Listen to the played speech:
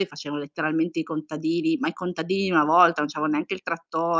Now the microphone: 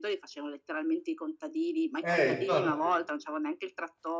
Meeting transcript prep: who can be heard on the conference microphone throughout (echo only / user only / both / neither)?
both